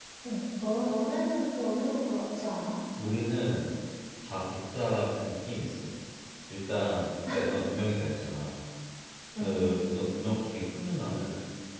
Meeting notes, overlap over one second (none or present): none